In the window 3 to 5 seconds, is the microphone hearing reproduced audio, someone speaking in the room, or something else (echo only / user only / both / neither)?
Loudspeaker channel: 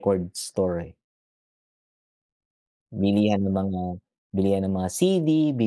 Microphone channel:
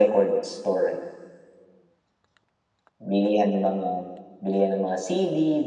echo only